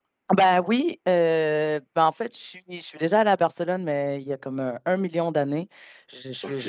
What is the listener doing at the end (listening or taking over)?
listening